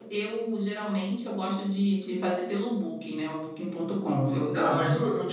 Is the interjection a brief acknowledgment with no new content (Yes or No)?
No